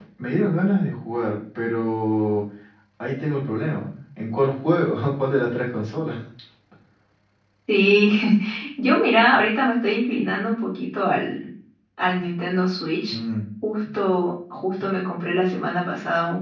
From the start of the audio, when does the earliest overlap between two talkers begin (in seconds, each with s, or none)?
none